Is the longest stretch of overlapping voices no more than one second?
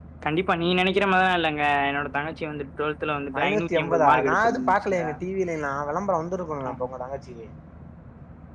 No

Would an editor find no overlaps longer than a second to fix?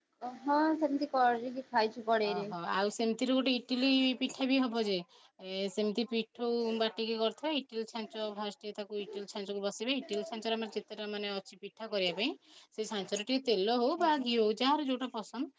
Yes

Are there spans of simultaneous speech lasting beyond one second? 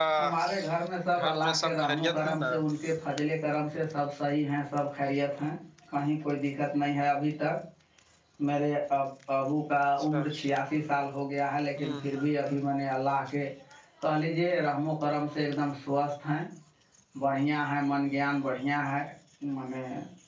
Yes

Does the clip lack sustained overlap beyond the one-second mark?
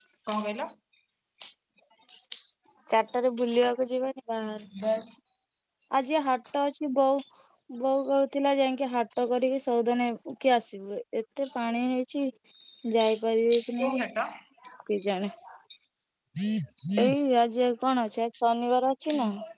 Yes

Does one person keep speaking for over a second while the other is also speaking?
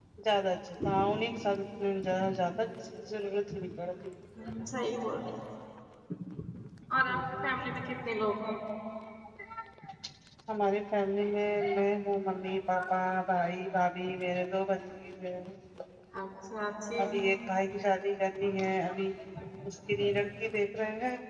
No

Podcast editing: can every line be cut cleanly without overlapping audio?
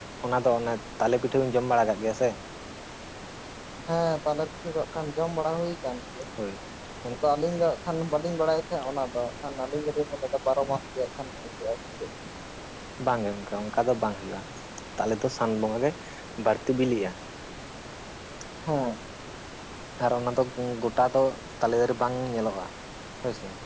Yes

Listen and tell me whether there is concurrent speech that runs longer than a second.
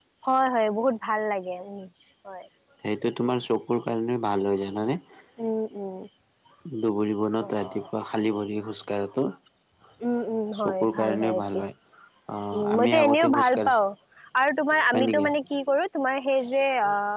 Yes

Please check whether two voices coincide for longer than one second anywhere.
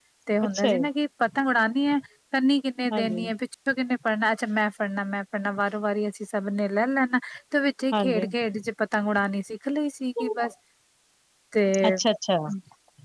No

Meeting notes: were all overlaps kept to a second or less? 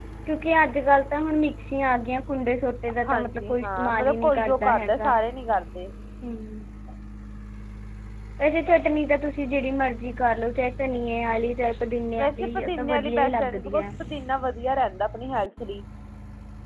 No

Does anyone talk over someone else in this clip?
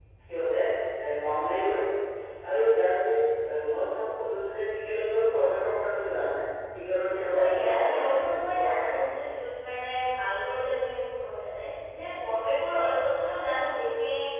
Yes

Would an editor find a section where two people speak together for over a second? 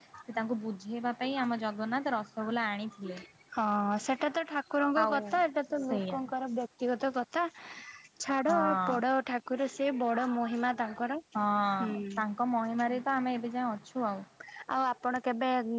No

